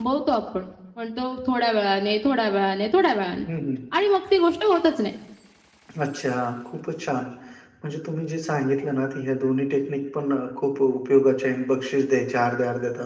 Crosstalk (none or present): none